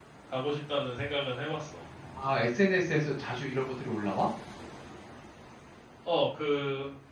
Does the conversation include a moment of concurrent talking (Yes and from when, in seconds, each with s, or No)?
No